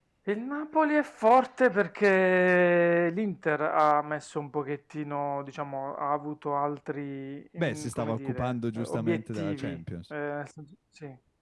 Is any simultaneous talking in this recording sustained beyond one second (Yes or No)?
Yes